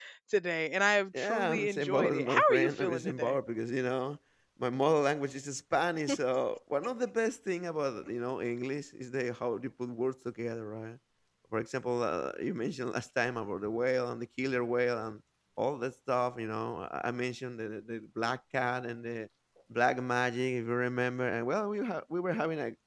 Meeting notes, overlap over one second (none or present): present